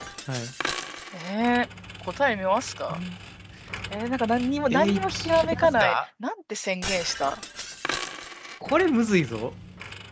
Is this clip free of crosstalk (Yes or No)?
No